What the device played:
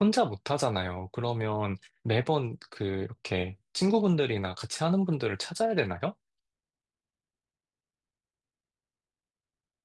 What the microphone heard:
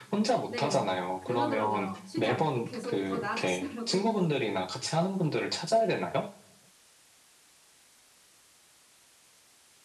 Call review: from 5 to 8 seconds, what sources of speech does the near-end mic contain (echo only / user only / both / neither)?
echo only